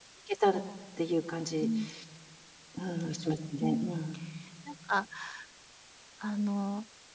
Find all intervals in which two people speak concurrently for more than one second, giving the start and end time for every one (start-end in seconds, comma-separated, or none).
none